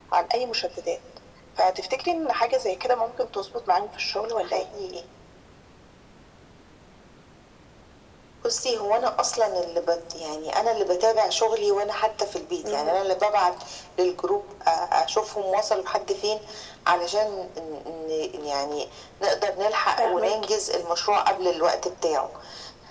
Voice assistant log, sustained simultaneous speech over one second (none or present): none